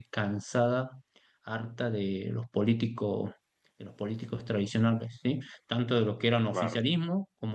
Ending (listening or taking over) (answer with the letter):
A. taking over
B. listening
B